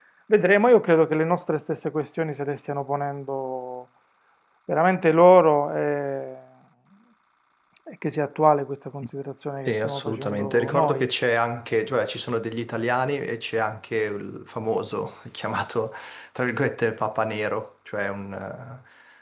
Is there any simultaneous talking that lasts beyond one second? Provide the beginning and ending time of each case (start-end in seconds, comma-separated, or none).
9.7-11.1